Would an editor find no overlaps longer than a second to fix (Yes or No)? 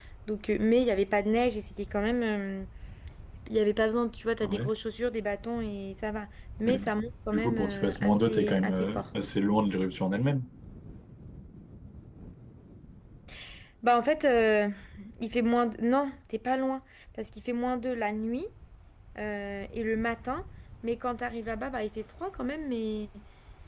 No